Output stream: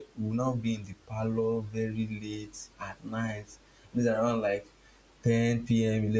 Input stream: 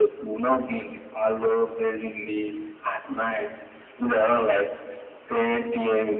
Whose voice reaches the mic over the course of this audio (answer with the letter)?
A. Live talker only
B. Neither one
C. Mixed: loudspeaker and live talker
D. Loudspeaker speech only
D